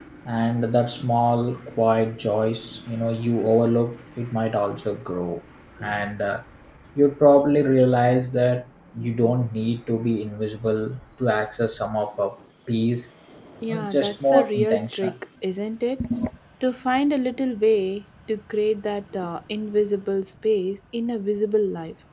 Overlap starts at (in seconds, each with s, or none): 13.6 s